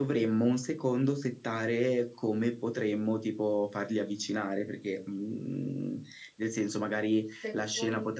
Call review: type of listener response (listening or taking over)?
listening